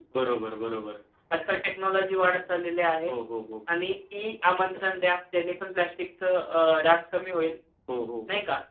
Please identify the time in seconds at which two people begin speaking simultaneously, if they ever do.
none

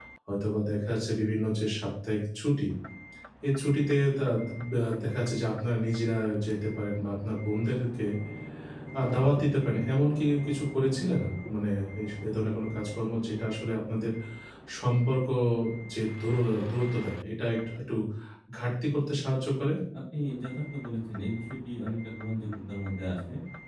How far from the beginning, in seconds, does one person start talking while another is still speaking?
none

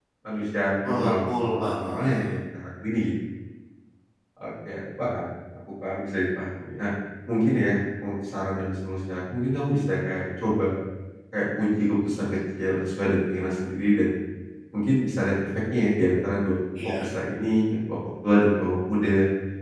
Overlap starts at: 0.8 s

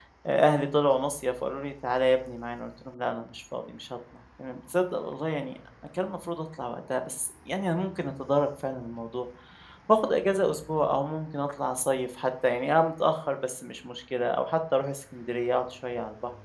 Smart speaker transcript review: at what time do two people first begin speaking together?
none

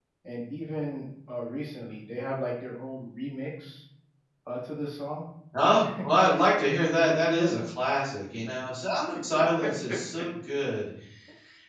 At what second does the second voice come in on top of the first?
5.8 s

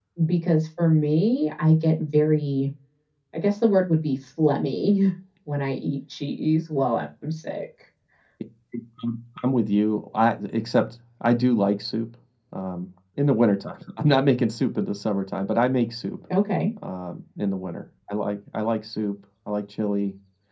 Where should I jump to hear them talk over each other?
none

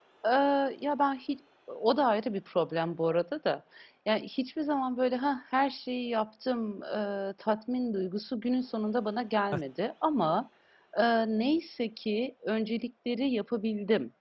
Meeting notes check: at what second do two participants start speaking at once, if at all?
none

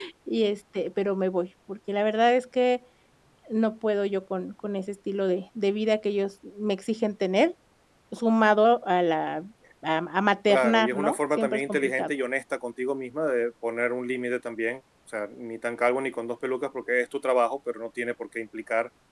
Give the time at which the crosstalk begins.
10.5 s

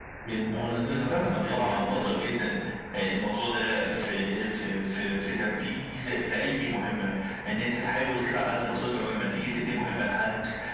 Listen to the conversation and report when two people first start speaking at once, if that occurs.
1.0 s

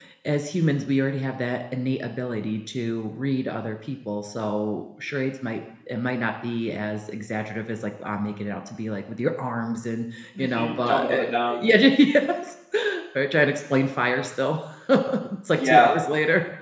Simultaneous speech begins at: 10.4 s

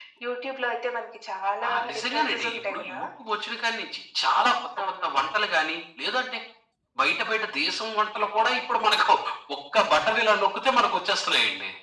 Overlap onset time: 1.7 s

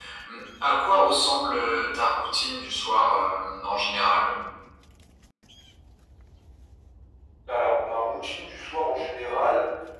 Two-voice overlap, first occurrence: none

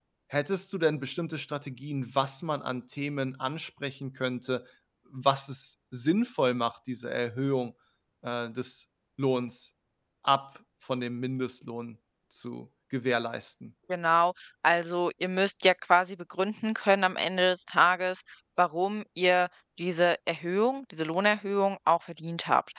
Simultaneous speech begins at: none

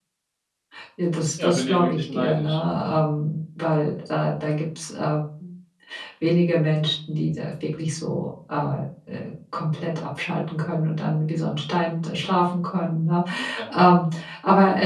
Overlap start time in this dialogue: 1.4 s

